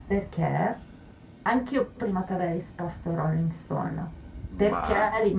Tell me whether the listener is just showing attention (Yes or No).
Yes